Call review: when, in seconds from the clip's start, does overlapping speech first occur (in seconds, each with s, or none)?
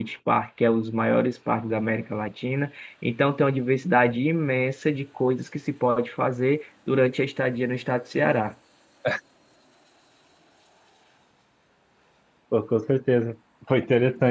none